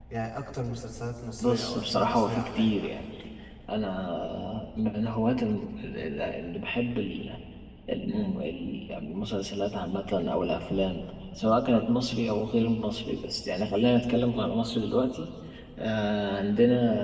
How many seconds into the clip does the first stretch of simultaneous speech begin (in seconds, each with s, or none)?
1.4 s